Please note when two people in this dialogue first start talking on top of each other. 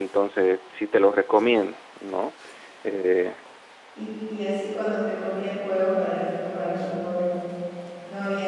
none

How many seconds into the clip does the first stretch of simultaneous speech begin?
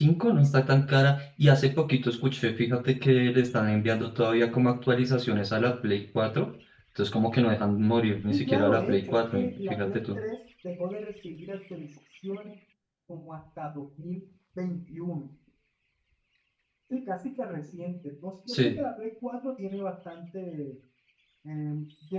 8 s

